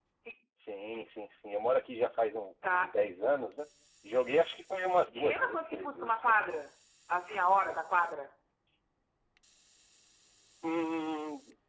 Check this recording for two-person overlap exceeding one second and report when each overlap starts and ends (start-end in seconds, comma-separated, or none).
5.1-6.3